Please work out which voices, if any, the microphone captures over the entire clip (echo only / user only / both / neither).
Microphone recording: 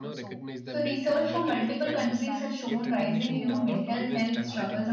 both